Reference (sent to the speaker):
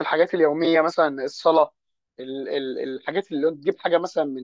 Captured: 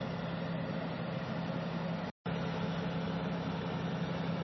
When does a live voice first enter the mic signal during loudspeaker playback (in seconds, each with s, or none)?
none